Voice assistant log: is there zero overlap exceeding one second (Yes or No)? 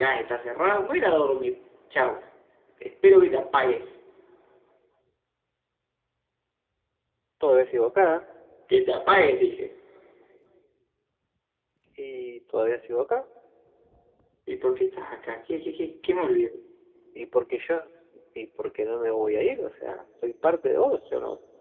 Yes